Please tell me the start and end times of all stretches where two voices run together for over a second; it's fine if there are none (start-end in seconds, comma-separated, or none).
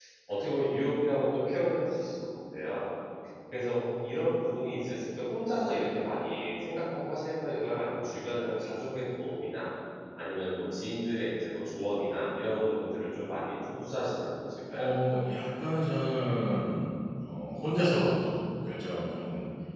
none